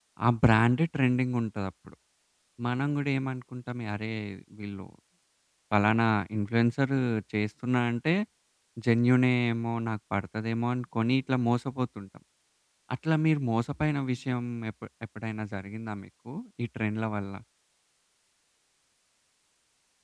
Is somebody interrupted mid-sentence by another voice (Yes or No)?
No